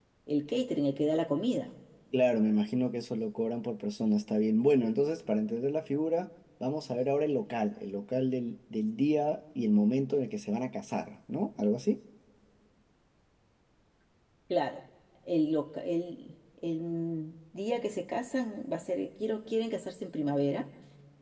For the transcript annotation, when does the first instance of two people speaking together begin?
none

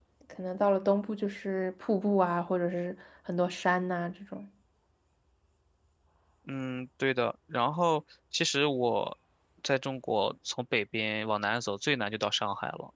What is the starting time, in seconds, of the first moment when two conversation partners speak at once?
none

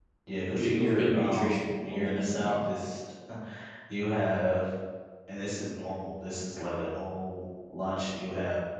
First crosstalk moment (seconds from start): 0.6 s

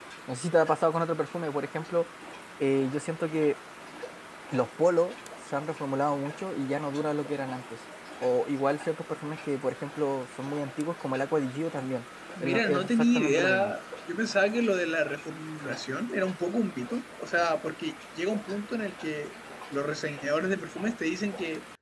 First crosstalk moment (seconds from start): 12.4 s

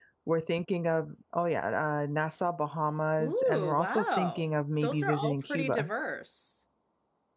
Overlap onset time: 3.2 s

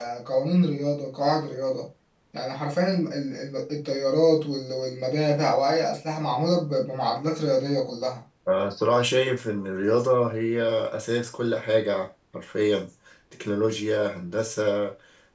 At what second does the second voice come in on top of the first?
none

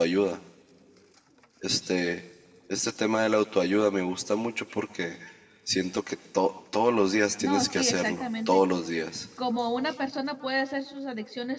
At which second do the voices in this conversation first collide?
7.4 s

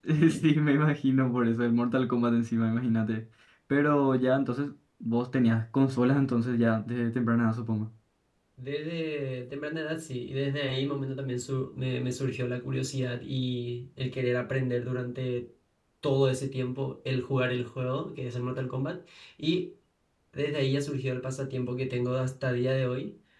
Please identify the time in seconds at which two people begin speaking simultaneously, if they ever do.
none

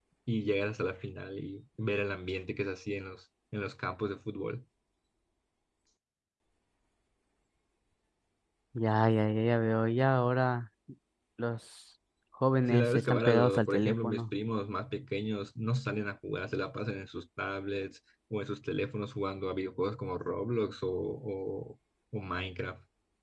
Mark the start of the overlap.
12.7 s

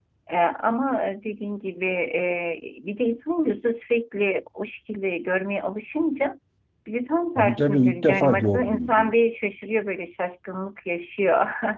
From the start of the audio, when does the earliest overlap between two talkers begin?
7.4 s

